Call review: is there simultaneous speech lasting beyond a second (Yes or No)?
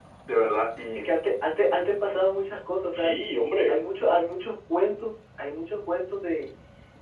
No